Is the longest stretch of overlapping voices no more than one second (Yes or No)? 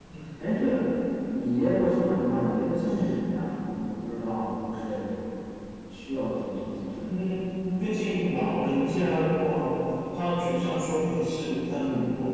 Yes